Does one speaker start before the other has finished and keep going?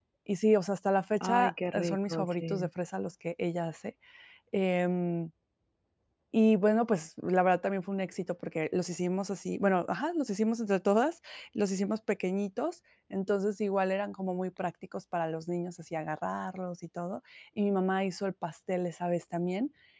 Yes, from 1.2 s

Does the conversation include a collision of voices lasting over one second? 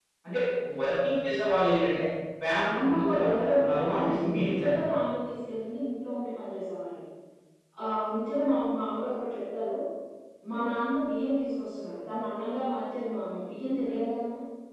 Yes, from 2.8 s

